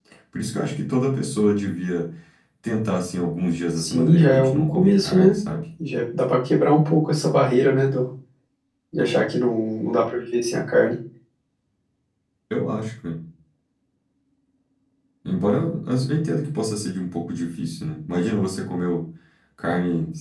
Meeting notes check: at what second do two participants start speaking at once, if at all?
3.8 s

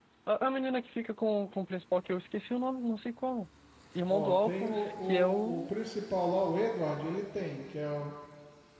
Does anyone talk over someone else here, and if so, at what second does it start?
4.1 s

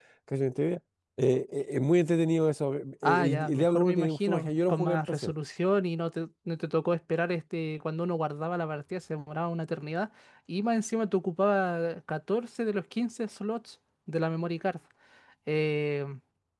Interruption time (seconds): 3.0 s

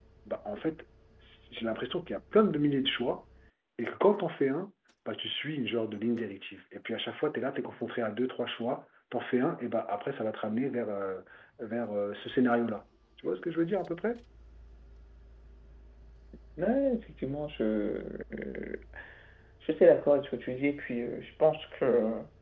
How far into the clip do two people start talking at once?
none

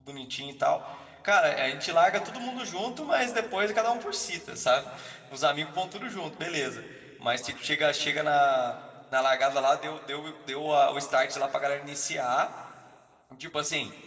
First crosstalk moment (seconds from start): none

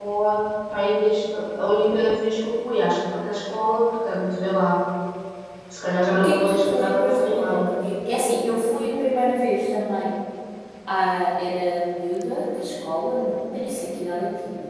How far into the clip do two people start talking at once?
6.1 s

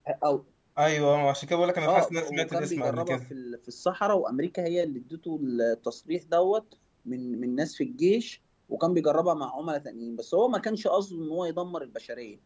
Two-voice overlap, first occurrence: 1.8 s

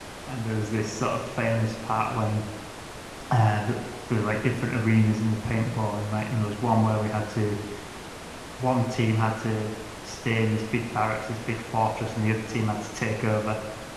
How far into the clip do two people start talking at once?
none

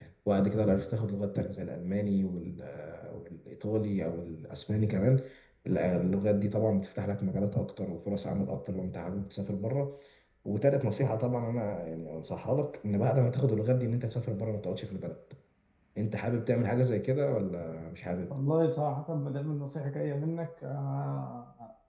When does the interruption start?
none

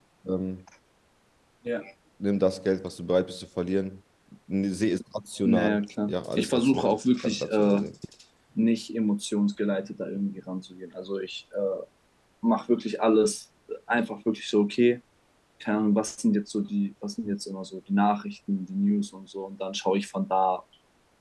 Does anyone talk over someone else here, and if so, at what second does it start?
5.4 s

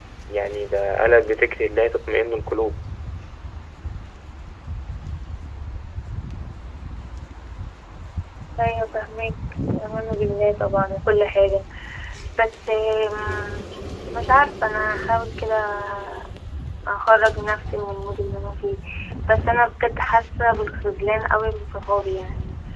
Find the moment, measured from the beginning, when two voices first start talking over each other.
none

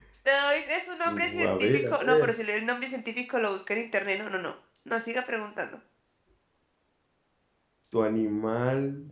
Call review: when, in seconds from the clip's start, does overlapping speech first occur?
1.1 s

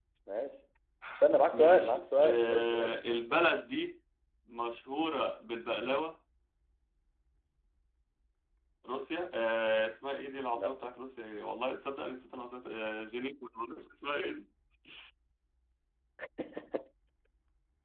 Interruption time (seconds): 1.5 s

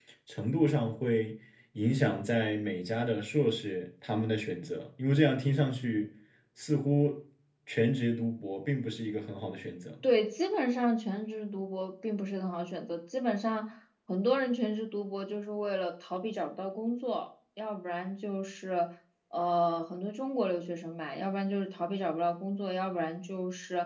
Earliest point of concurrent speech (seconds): none

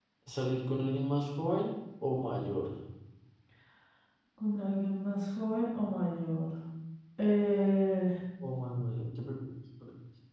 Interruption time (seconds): none

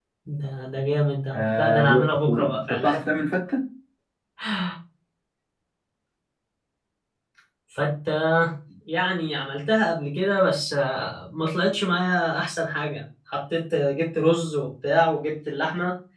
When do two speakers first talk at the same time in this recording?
1.3 s

